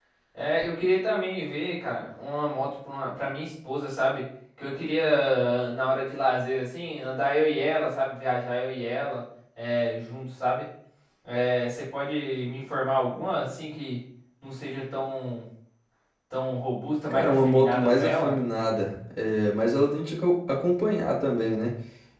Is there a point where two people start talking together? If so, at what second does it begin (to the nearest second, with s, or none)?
17 s